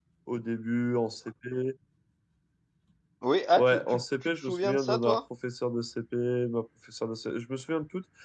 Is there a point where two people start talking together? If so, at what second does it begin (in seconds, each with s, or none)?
3.5 s